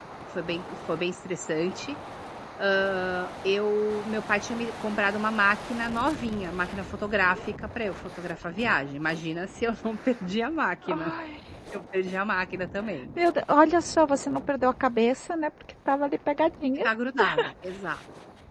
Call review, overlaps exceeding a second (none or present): none